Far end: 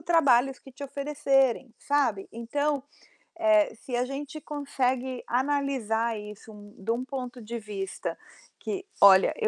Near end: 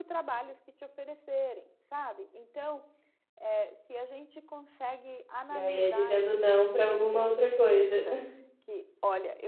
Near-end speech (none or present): present